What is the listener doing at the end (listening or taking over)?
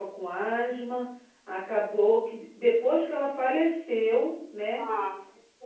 listening